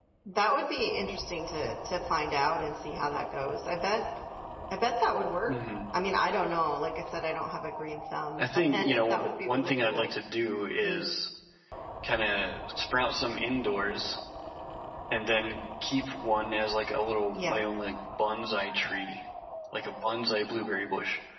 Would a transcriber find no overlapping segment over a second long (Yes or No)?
No